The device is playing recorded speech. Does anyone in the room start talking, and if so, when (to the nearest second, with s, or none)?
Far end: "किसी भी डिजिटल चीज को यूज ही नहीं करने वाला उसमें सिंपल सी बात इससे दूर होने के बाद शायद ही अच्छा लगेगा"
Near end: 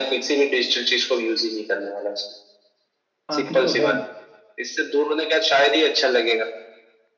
3 s